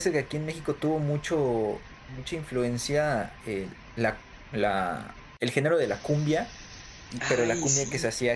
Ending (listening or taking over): listening